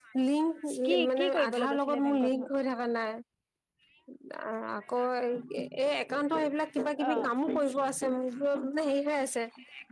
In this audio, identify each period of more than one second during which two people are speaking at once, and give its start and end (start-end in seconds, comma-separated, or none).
1.1-2.4